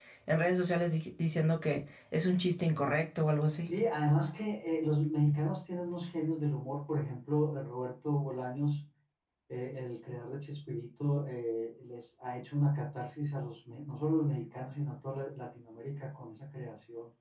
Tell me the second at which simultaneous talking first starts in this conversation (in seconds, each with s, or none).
none